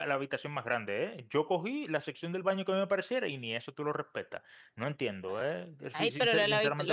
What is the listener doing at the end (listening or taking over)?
taking over